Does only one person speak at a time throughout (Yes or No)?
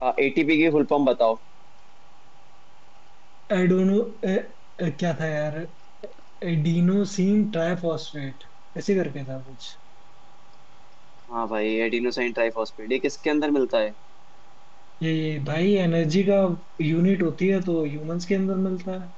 Yes